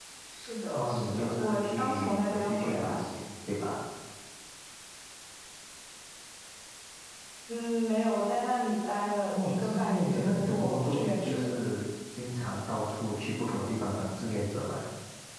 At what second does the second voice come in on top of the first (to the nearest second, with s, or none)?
1 s